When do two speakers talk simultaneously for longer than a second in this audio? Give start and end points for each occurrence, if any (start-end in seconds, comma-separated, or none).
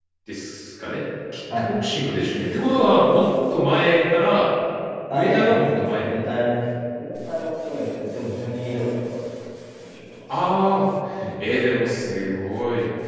5.1-6.3